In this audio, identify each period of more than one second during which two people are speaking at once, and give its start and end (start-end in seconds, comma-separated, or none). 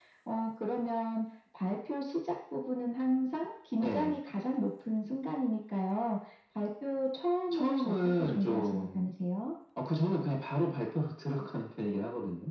7.5-9.1